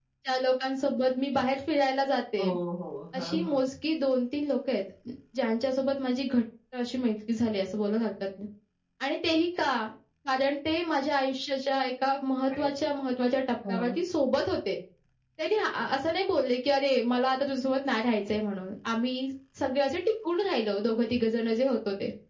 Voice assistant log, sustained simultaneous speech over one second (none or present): none